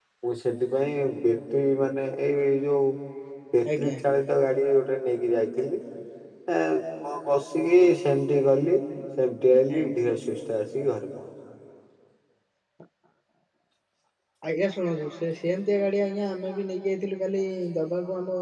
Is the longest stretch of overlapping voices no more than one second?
Yes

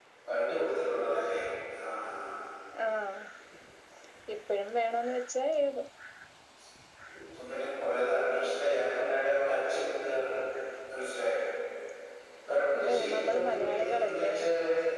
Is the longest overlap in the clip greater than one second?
Yes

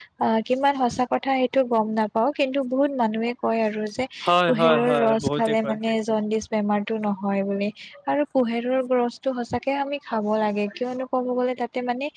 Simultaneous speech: Yes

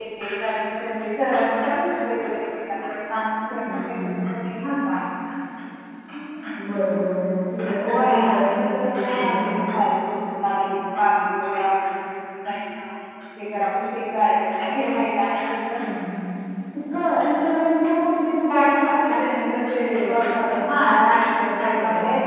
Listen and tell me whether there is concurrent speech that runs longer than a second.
Yes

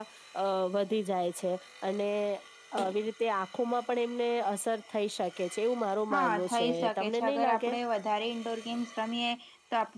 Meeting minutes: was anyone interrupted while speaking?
Yes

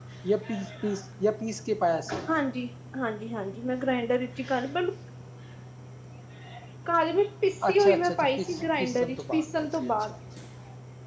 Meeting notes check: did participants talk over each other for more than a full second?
Yes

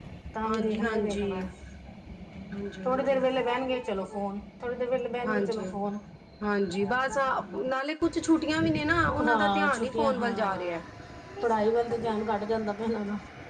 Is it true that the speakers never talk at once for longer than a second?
No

